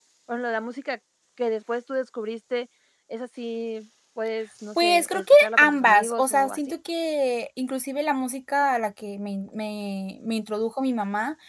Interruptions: present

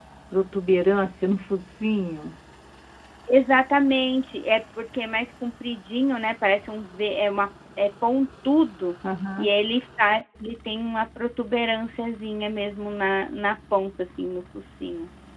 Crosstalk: none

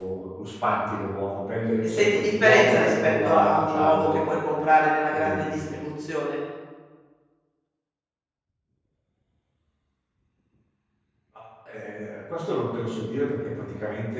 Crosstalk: present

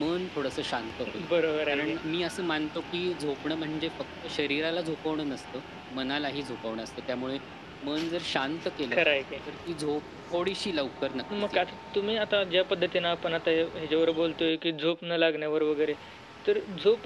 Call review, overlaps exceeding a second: none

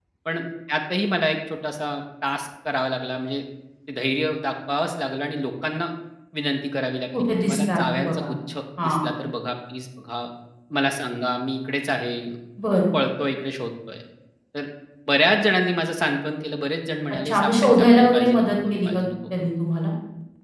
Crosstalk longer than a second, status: present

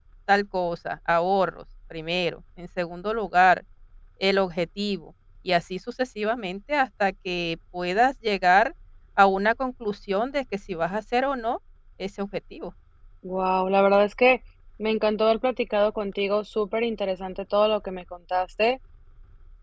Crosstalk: none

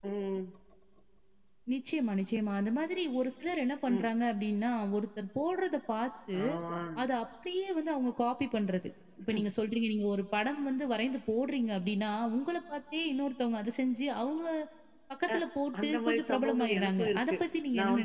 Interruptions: present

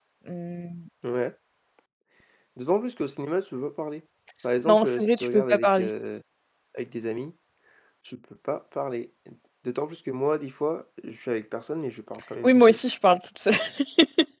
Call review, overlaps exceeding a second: present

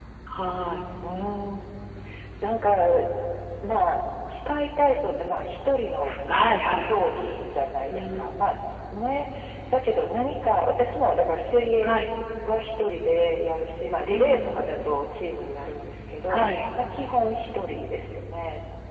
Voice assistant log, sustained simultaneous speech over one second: none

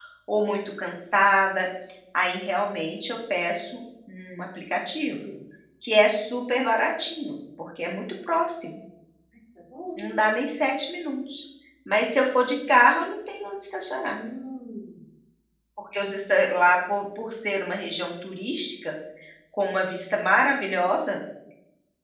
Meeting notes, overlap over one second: none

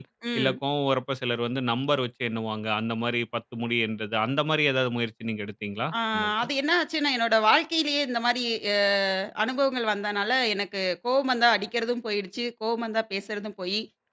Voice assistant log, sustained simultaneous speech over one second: none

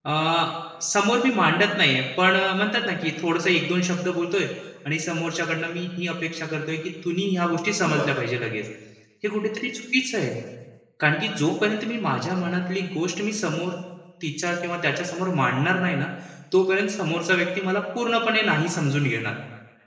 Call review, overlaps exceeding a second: none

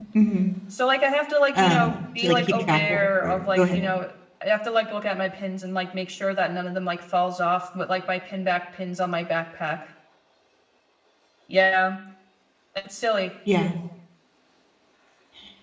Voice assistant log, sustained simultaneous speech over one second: present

